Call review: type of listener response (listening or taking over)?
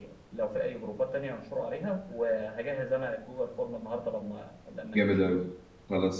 taking over